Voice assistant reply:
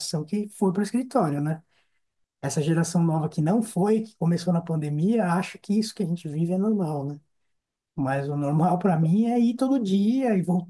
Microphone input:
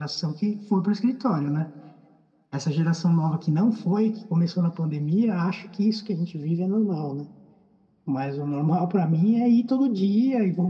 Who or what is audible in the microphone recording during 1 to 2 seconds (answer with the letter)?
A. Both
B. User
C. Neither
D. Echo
D